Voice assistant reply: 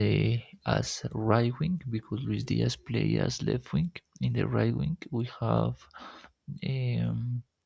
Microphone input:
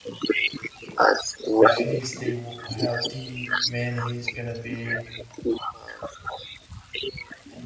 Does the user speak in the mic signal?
Yes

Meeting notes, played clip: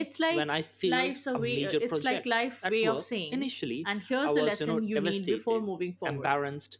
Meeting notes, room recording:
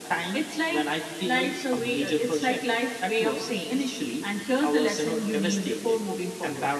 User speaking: No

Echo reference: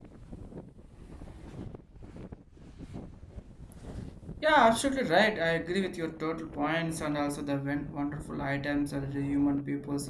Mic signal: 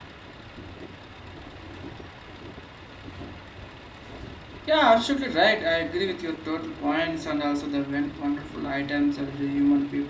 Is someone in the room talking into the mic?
No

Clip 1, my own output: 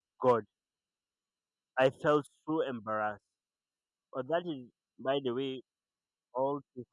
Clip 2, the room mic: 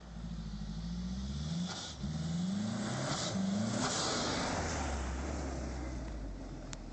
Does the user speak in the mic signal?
No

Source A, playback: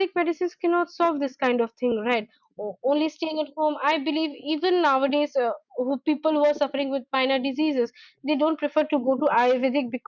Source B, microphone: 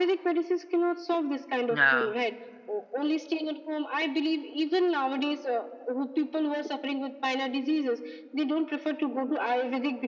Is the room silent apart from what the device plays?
No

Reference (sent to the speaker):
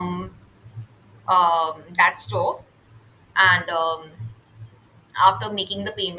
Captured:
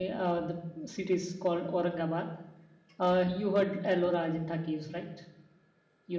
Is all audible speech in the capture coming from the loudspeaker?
No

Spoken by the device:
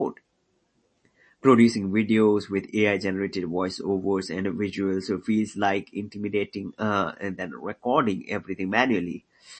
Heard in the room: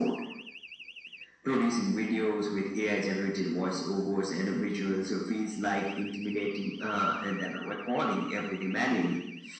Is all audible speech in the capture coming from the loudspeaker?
Yes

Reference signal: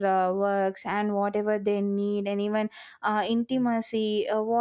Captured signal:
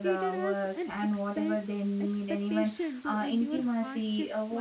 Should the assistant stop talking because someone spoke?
Yes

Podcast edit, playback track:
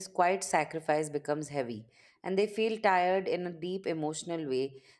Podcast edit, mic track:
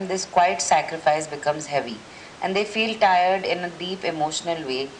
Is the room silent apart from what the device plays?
Yes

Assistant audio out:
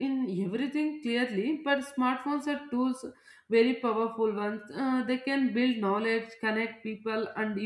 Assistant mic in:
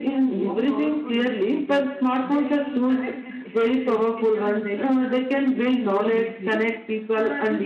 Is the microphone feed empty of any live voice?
No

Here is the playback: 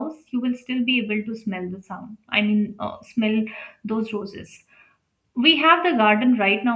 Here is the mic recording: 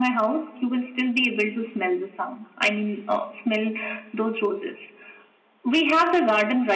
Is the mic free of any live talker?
Yes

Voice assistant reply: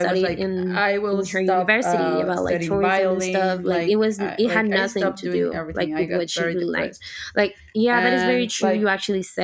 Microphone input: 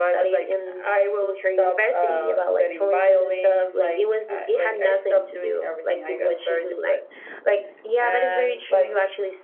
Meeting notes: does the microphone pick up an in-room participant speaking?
No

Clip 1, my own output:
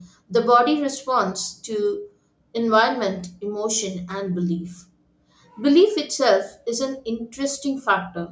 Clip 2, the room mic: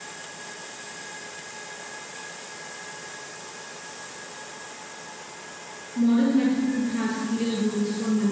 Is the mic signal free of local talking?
No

